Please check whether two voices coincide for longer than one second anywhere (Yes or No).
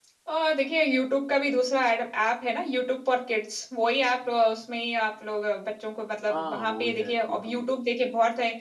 Yes